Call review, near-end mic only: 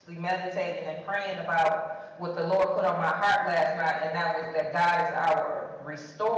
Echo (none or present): none